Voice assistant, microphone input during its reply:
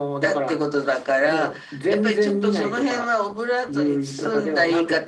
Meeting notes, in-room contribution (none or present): none